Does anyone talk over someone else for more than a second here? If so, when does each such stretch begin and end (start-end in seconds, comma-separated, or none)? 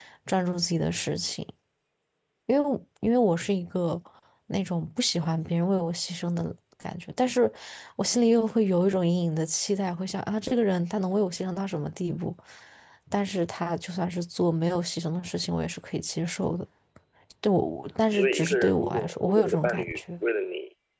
18.1-20.0